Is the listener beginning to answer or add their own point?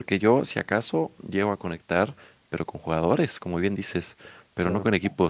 No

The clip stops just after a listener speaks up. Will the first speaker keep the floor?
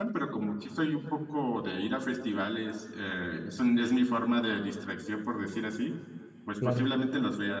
Yes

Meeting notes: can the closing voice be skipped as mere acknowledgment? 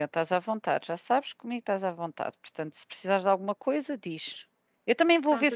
Yes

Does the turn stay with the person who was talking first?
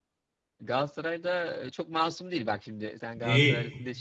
No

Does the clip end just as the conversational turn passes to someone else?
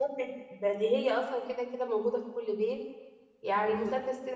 No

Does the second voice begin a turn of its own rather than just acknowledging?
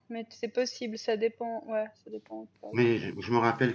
Yes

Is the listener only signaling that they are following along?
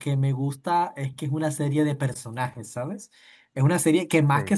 Yes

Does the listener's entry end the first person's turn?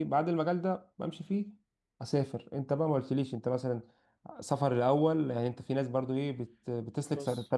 No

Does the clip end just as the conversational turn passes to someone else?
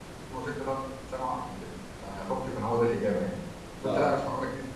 No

